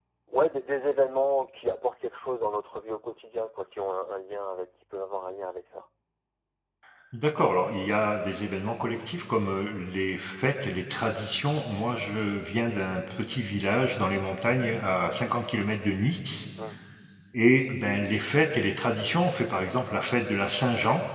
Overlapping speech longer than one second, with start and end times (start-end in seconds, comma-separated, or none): none